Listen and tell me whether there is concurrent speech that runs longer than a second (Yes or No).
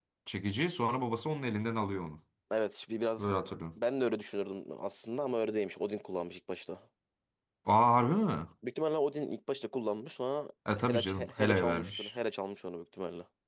Yes